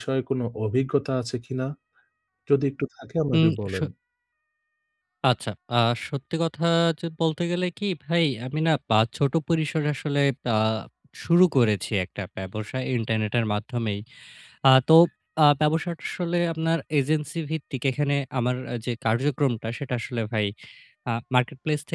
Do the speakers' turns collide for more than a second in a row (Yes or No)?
No